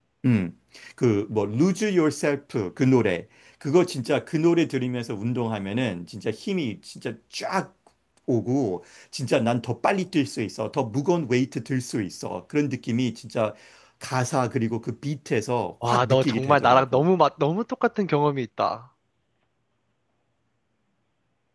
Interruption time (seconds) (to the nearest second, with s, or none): 16 s